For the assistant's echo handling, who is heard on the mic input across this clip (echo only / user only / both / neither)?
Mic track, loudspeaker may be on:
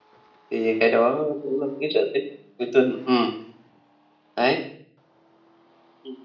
user only